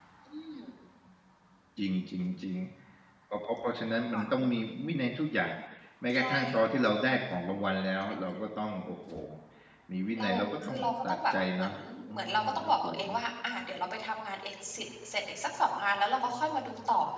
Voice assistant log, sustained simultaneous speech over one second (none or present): present